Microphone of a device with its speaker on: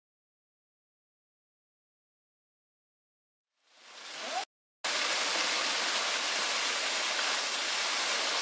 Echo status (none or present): none